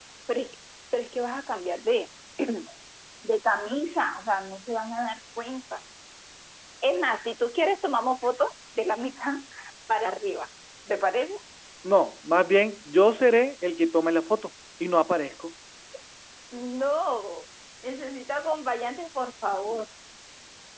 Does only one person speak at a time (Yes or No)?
Yes